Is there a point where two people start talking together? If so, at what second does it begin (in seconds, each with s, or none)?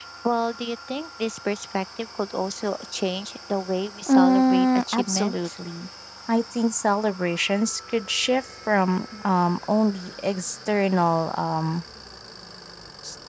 4.1 s